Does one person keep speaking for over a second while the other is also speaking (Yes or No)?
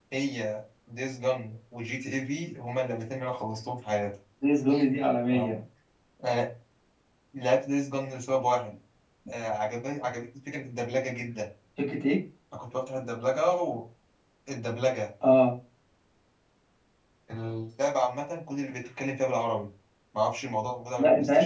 No